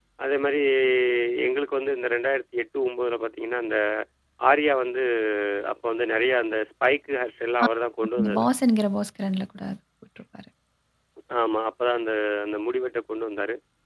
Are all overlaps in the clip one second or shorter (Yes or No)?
Yes